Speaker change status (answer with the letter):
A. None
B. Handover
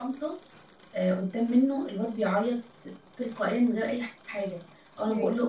A